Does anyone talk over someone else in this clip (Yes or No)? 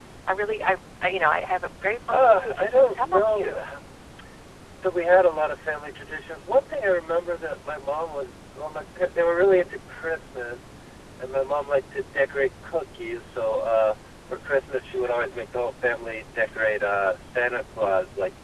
Yes